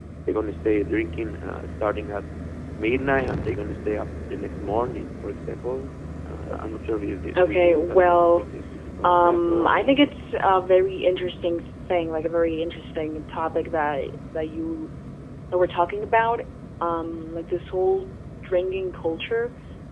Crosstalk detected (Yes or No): Yes